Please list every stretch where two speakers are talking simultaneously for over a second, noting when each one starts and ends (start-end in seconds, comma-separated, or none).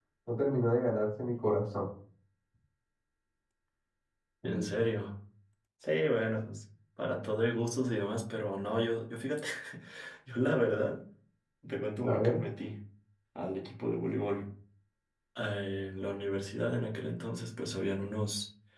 none